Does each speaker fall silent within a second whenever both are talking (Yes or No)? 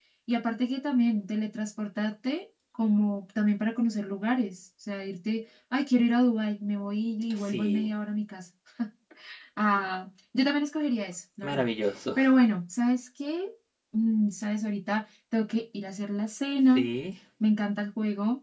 Yes